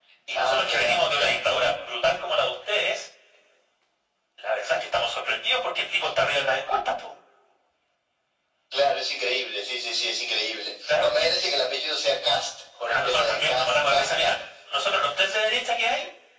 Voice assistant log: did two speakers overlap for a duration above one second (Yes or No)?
Yes